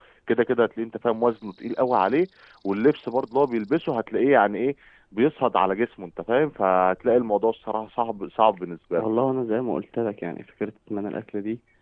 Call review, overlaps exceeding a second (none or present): none